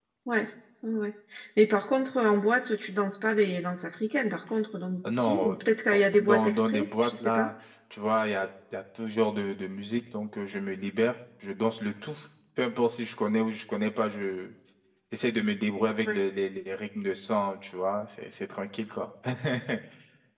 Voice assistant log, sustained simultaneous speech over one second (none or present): present